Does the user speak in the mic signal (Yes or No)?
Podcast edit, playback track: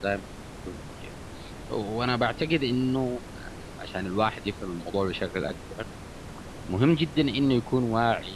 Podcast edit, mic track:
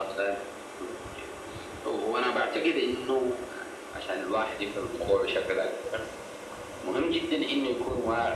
No